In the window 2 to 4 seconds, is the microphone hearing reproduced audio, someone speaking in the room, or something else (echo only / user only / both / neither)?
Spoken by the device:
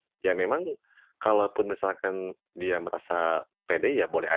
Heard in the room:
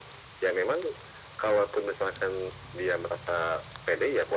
echo only